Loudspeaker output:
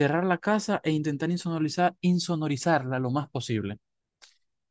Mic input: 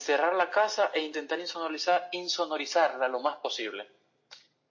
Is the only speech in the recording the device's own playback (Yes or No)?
Yes